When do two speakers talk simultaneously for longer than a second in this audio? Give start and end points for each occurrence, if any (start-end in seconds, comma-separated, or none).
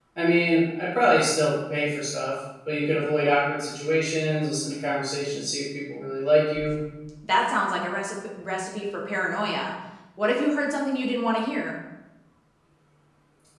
none